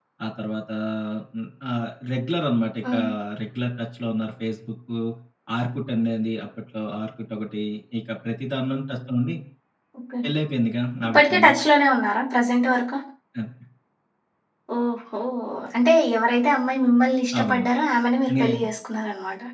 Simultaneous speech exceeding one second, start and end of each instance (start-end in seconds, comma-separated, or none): none